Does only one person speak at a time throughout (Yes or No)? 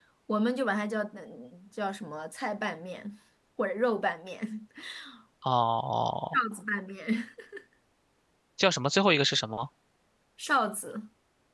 Yes